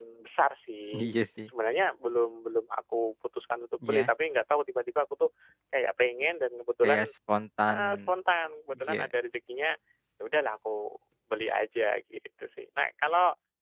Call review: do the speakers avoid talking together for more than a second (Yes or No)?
Yes